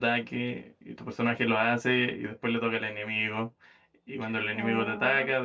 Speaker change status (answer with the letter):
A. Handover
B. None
B